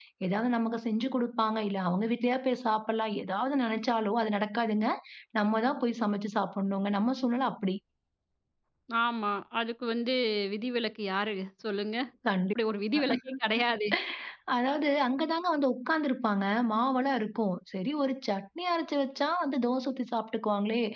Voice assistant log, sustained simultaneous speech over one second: none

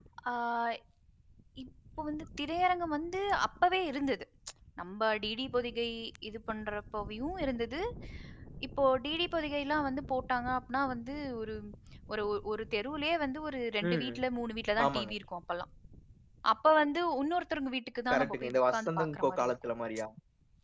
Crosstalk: present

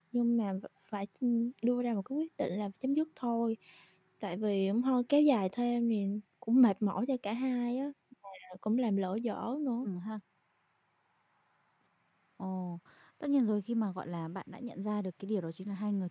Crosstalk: none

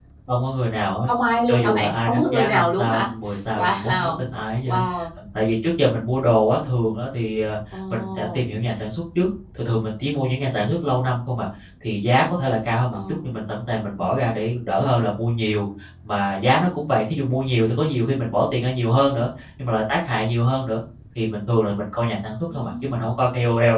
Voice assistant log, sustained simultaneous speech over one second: present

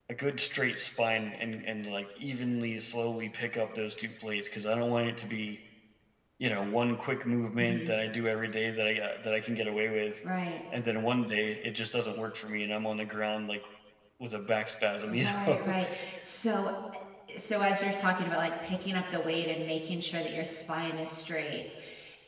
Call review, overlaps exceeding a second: none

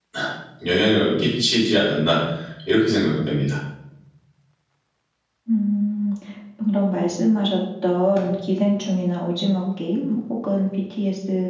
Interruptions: none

